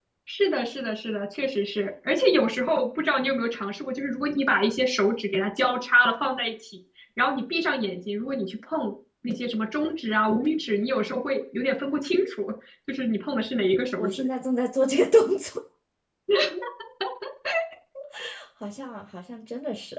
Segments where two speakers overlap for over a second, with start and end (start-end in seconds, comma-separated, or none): none